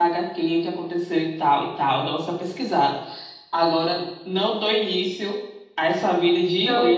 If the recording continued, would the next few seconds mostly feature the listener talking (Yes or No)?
Yes